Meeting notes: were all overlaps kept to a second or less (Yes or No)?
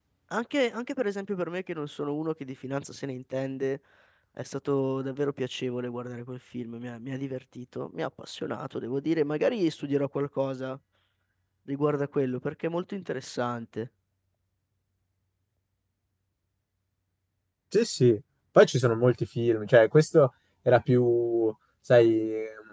Yes